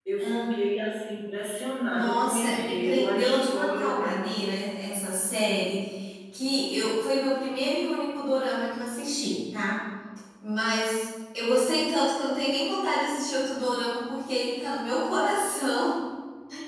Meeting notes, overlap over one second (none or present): present